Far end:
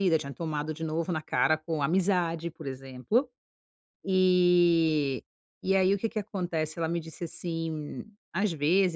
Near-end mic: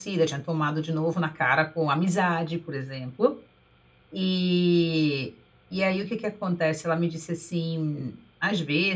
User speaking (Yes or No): No